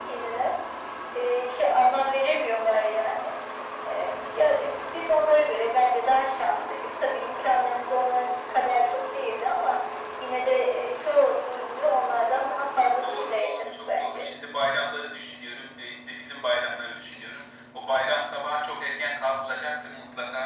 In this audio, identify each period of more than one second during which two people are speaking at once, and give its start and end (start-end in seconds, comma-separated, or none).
13.0-14.2